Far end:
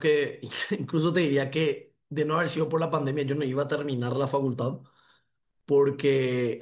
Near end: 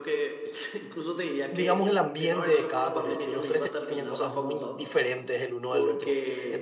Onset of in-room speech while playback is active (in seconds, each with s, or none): 1.5 s